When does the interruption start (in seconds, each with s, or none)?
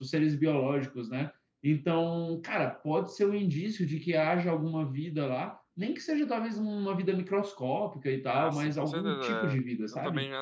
8.4 s